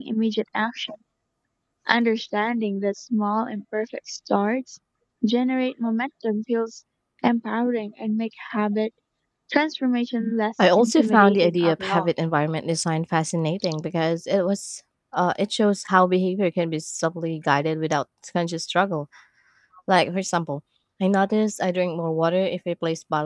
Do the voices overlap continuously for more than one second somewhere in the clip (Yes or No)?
Yes